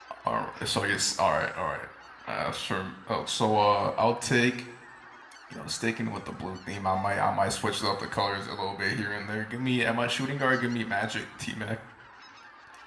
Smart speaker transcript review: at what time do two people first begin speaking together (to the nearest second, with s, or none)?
none